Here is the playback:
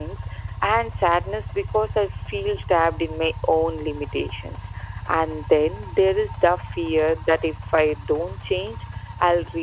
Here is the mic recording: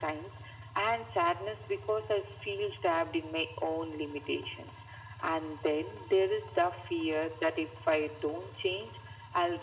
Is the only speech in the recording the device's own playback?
Yes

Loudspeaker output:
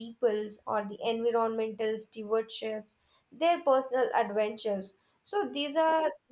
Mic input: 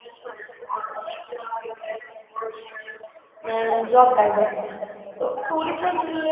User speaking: Yes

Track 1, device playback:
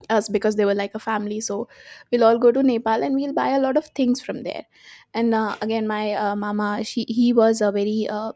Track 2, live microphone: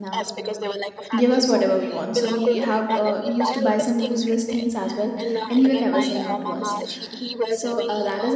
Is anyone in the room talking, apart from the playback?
Yes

